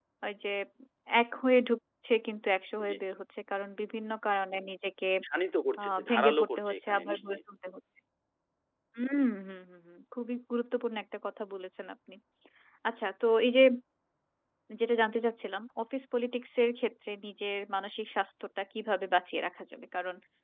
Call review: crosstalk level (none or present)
present